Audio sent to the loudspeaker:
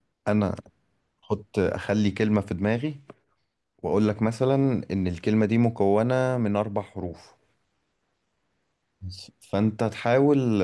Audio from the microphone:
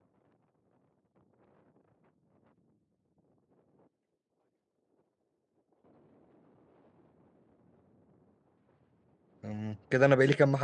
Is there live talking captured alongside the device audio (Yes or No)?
Yes